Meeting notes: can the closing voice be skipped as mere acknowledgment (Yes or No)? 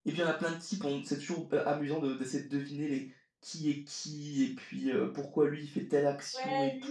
No